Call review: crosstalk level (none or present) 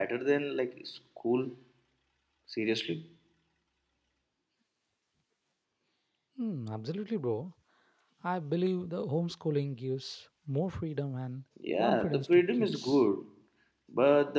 present